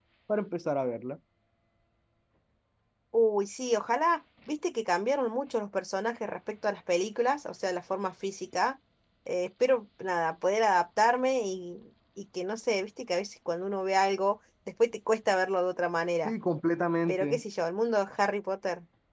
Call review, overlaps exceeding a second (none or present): none